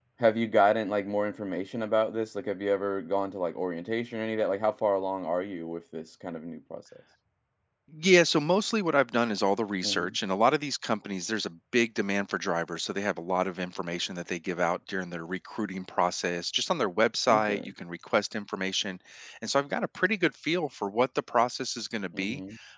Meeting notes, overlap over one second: none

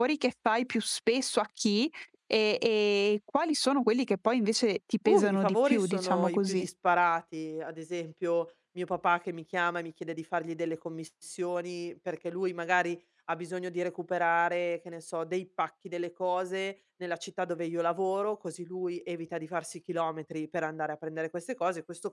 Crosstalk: present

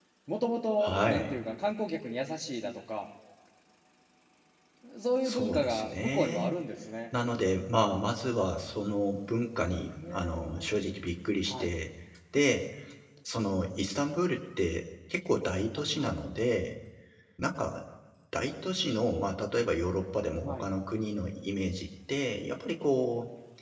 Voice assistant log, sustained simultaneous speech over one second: present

